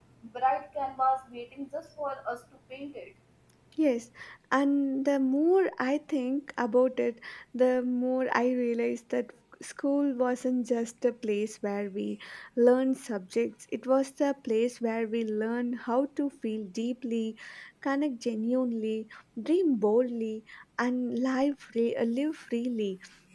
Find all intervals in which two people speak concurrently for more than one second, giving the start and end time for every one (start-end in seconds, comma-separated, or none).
none